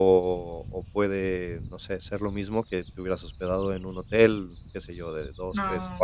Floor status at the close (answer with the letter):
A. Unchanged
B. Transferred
A